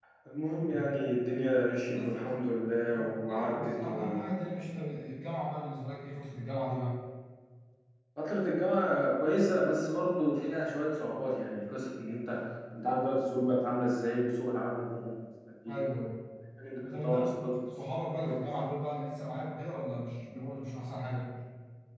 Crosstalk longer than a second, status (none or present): present